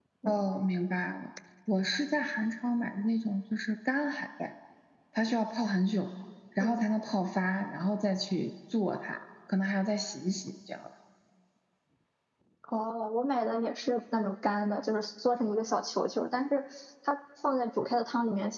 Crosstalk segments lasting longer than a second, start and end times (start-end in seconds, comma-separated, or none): none